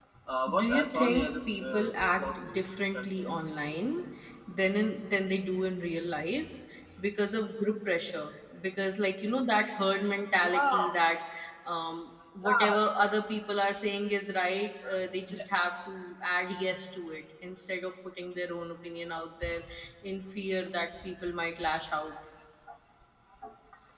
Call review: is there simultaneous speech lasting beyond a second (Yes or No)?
Yes